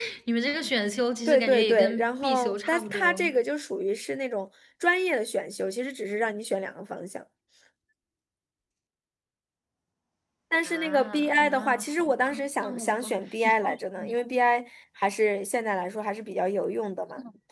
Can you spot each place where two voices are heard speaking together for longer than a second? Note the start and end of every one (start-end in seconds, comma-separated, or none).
1.3-3.3, 10.6-13.5